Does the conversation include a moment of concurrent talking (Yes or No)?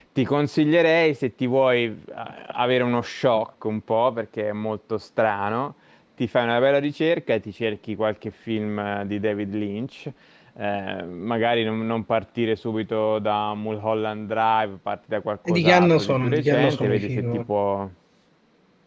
Yes